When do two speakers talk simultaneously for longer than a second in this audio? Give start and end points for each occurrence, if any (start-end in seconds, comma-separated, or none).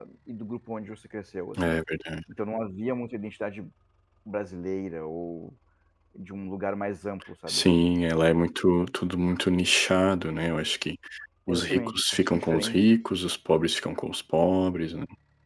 11.5-12.9